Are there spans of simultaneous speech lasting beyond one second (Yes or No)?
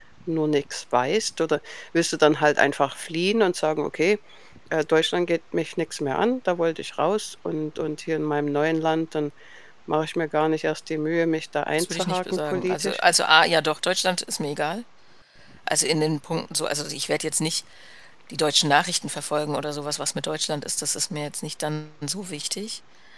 Yes